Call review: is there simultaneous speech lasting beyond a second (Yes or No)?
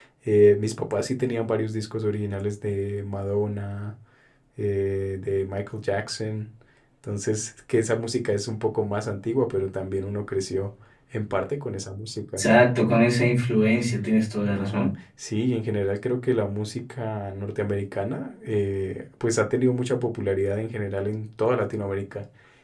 No